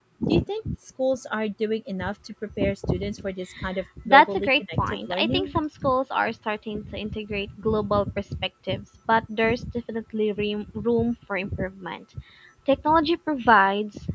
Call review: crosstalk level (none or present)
present